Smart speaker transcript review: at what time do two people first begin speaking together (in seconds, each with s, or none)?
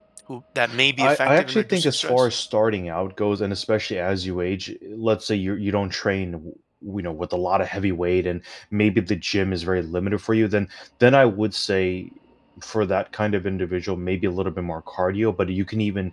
1.0 s